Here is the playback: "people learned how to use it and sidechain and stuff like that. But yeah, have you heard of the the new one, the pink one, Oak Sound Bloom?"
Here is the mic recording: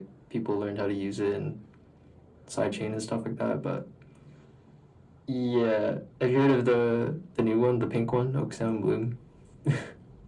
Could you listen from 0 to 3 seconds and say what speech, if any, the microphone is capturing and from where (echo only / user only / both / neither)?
echo only